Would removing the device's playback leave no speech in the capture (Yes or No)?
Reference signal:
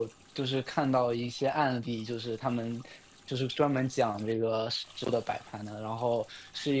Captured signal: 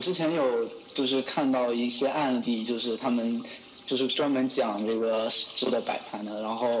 Yes